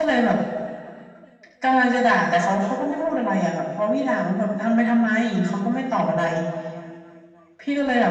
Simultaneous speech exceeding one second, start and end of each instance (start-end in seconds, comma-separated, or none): none